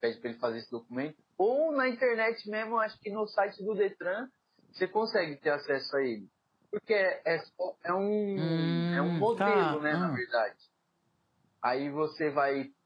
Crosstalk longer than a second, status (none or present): present